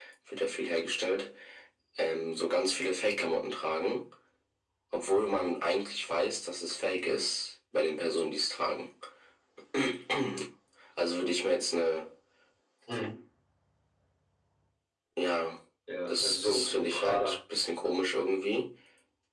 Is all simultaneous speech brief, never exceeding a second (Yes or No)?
No